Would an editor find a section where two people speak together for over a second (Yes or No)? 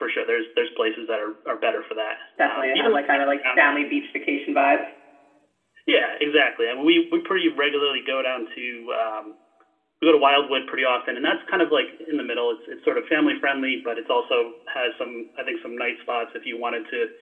Yes